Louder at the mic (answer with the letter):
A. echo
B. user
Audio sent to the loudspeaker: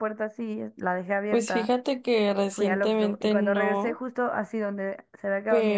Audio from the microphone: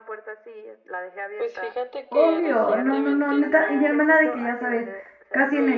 B